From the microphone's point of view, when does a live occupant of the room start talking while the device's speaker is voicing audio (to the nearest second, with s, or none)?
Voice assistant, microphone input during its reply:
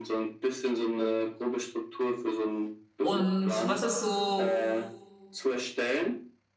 3 s